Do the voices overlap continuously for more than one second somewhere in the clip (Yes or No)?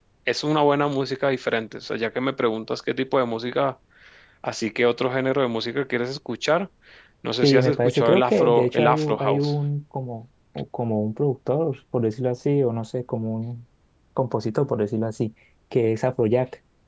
Yes